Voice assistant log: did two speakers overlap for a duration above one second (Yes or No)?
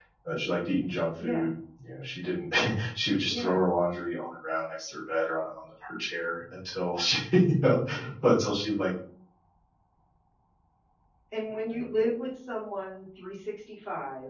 No